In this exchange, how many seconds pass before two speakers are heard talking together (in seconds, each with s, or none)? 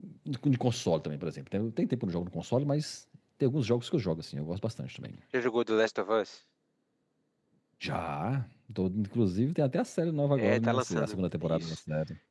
10.4 s